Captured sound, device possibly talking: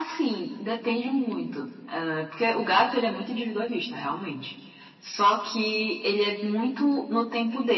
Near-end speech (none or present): none